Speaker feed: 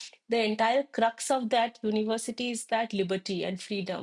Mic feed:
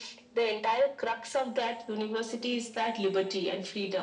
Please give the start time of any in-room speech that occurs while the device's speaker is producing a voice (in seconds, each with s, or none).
none